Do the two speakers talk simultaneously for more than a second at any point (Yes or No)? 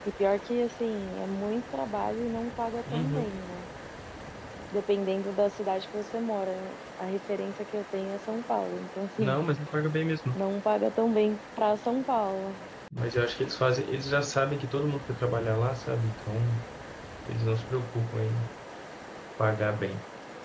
No